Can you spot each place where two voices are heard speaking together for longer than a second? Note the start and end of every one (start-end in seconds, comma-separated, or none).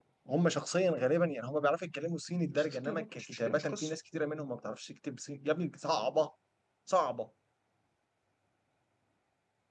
2.5-4.0